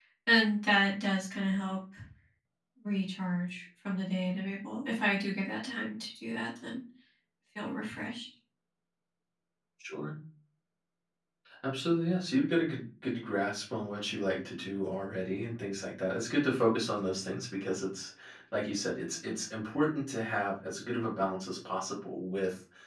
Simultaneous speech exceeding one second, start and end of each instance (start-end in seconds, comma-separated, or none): none